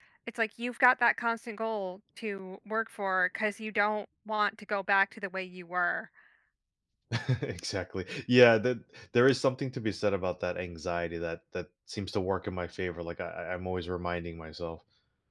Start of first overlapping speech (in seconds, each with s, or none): none